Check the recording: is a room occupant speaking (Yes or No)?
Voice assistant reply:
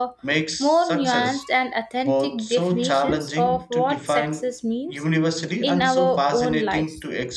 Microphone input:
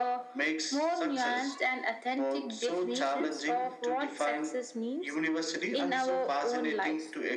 No